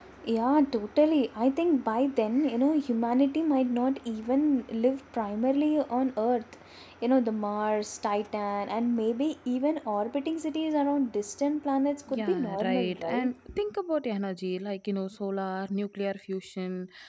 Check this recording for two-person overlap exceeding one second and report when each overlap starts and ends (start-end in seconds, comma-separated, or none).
12.1-13.3